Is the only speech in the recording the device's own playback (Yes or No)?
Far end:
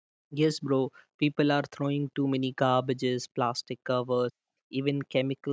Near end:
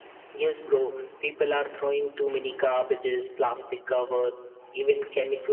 Yes